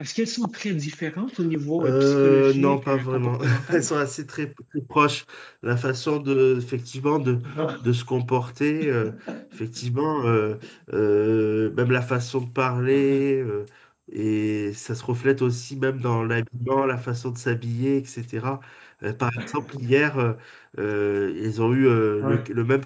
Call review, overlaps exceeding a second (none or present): present